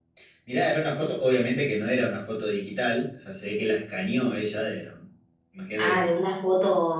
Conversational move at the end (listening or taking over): taking over